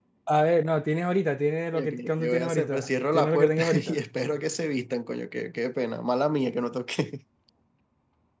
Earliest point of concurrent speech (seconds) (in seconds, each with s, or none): 1.7 s